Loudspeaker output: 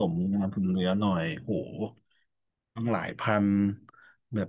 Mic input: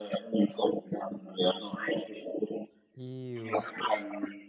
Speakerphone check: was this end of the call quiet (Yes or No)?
No